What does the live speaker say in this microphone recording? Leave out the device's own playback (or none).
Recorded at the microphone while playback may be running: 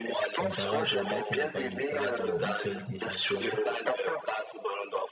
Comparé à Drogba qui n'a pas eu de Cannes, euh, une seule Ligue des Champions.